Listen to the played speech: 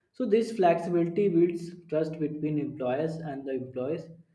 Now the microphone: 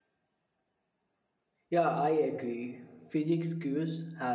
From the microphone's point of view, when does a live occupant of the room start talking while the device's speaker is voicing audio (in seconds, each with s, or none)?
1.7 s